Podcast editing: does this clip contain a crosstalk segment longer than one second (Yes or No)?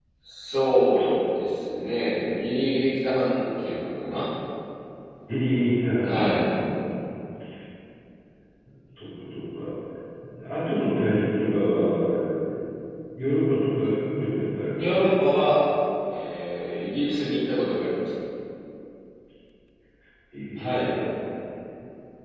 No